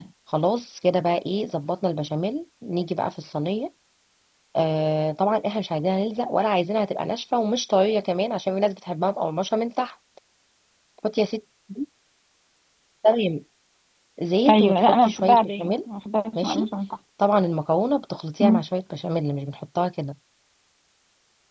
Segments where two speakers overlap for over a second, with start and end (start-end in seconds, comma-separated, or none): 14.5-15.7